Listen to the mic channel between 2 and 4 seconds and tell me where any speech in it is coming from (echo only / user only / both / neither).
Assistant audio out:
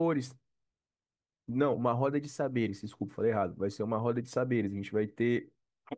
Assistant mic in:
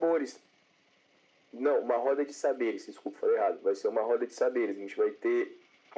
echo only